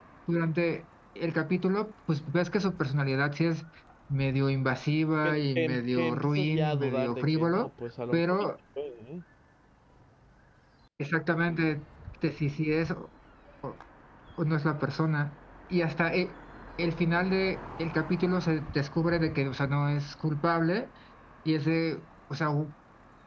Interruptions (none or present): present